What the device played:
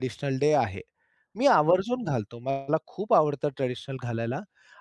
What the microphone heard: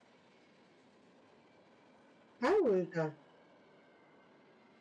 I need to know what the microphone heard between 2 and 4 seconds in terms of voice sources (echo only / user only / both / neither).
user only